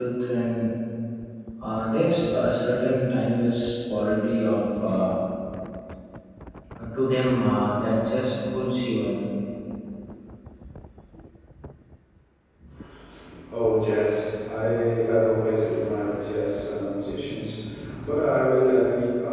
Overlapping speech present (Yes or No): No